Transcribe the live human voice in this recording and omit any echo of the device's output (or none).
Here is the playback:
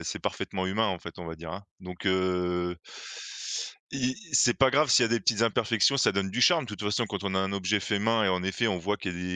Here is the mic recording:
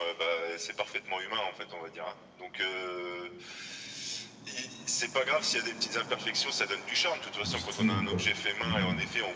Du style ou quoi. Mmh.